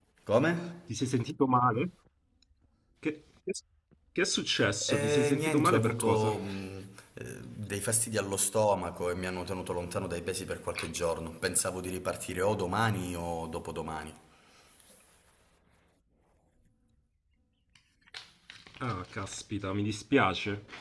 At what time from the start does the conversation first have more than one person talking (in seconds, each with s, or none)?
4.8 s